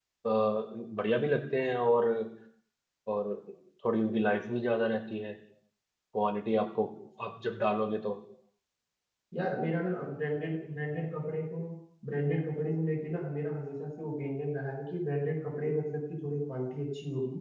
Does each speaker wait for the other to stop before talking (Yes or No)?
Yes